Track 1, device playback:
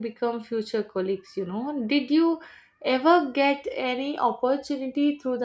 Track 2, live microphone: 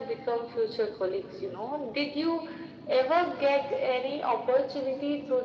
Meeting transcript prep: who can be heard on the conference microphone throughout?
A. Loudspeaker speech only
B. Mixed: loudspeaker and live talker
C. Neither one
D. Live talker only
A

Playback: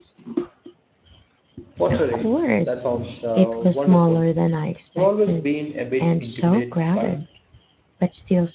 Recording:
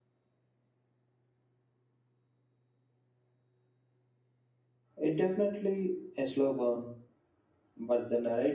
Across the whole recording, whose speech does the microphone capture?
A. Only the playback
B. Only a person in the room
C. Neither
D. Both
B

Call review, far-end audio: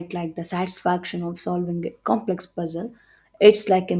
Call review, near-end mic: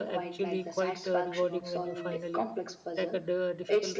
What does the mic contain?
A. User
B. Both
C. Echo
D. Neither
B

